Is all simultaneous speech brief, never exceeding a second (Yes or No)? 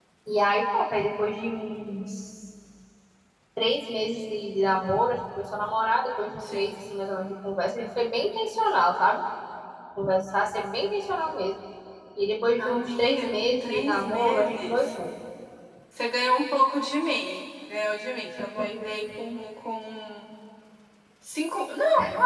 No